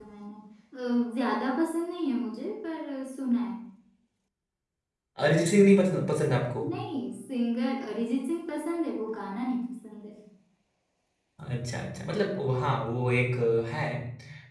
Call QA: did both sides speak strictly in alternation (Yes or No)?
Yes